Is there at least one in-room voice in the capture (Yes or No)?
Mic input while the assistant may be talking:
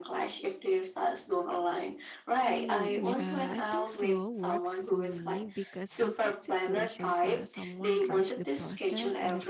Yes